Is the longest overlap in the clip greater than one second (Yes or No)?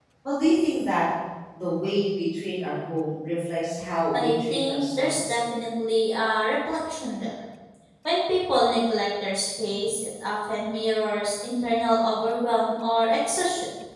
Yes